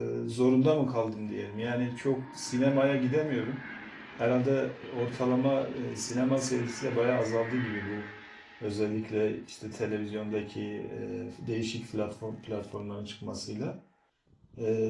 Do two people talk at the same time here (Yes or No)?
No